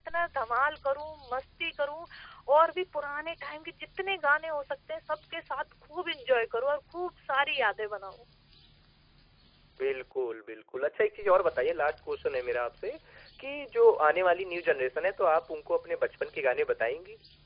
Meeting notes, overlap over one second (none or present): none